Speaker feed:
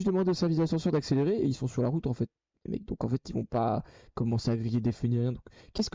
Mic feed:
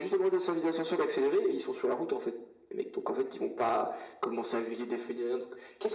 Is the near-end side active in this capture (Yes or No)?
No